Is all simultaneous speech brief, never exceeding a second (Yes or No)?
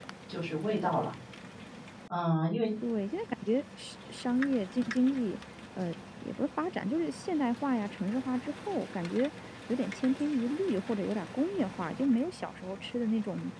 Yes